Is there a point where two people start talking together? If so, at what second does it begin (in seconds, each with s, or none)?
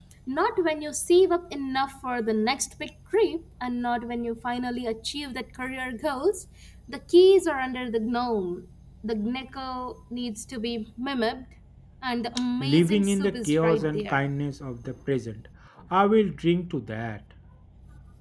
12.6 s